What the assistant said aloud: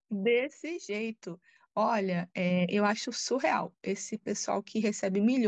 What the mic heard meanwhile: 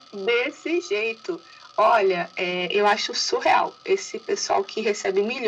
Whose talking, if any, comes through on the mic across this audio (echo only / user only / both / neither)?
echo only